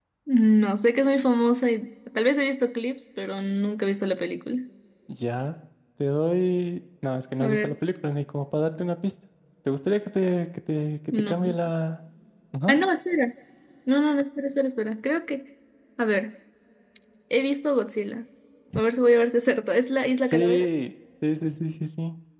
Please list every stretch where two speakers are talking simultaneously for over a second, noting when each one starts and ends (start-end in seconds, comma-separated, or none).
none